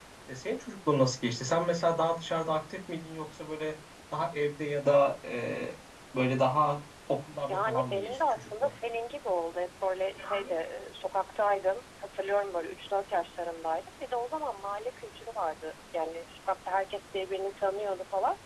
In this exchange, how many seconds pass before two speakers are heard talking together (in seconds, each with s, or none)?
7.5 s